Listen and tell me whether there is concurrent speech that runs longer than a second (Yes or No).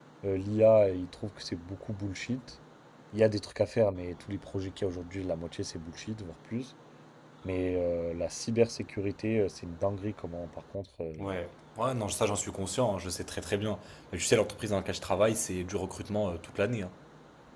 No